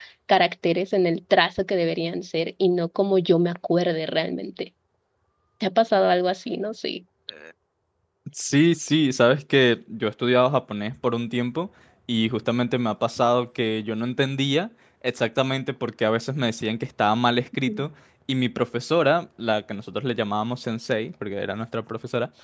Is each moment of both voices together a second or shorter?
Yes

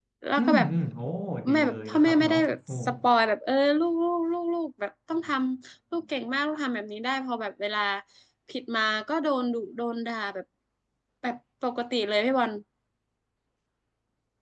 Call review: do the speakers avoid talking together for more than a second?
No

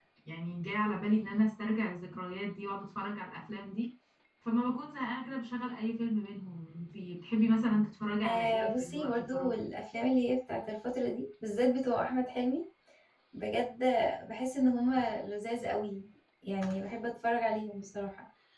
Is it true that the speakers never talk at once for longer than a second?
No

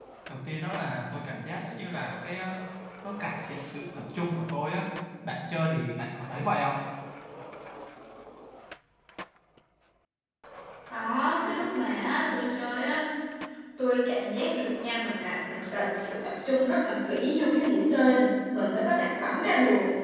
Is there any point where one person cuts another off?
No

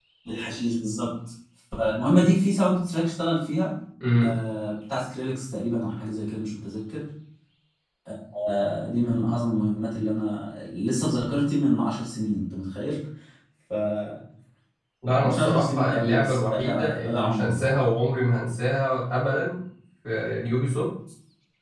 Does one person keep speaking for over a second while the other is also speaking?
Yes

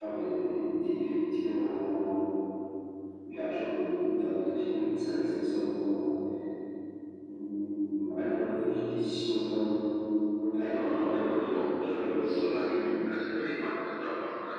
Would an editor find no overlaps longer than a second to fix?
No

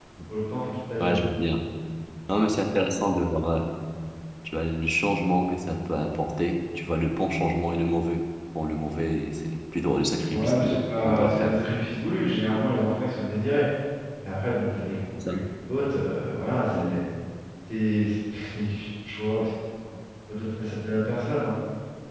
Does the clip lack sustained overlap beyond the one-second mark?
No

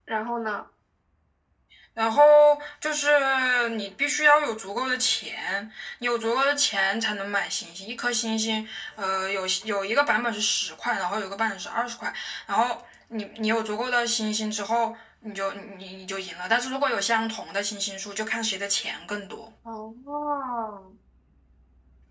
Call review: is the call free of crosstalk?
Yes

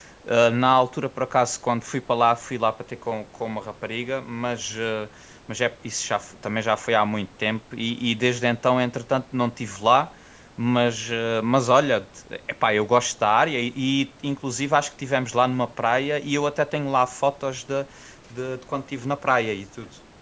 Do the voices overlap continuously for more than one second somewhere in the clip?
No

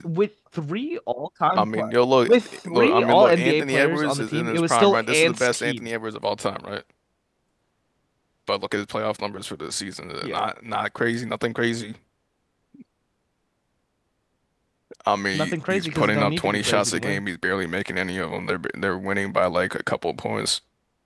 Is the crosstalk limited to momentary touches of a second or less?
No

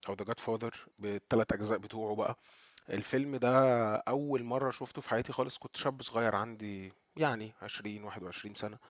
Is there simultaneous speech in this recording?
No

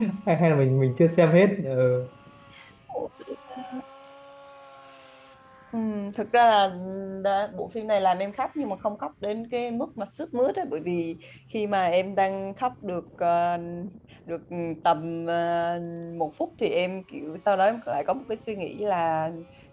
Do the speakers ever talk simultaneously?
No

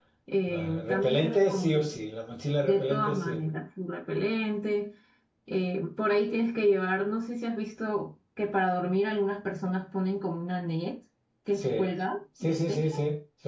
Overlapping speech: Yes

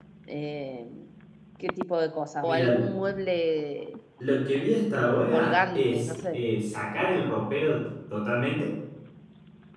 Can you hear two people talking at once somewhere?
Yes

